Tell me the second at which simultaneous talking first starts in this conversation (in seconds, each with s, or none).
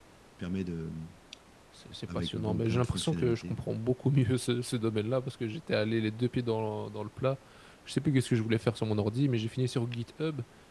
2.1 s